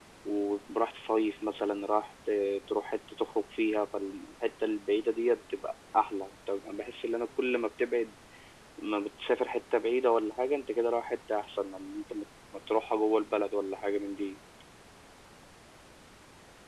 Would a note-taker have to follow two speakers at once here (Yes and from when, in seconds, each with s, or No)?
No